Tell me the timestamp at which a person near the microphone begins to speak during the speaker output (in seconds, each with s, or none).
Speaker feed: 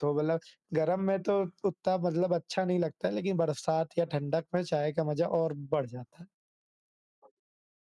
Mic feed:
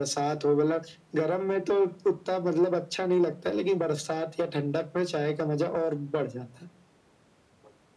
none